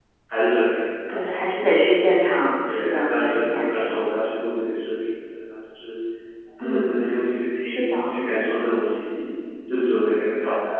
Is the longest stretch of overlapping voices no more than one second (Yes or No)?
No